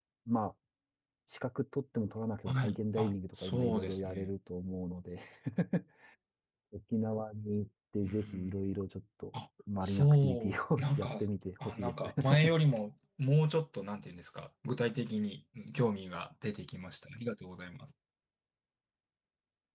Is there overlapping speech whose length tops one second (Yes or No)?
Yes